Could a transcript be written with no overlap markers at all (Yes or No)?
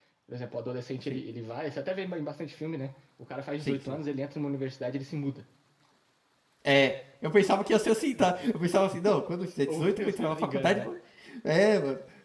No